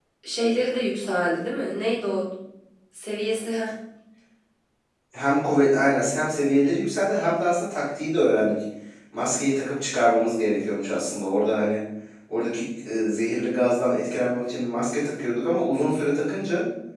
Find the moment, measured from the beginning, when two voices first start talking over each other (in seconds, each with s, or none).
none